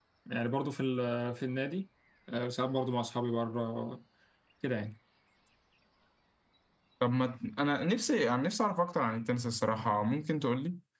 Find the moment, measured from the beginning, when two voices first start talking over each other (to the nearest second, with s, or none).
none